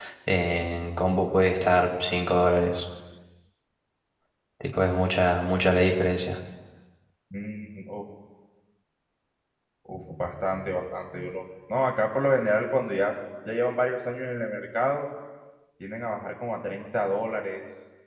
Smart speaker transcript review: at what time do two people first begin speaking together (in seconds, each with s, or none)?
none